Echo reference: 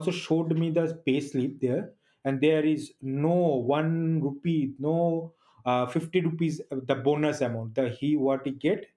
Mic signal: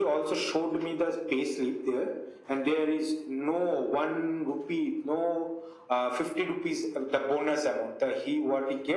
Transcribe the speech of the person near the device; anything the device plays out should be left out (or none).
none